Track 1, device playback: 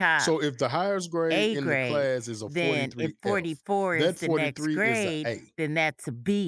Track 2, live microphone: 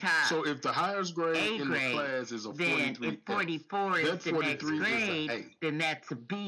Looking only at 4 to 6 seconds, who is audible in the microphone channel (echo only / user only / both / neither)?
both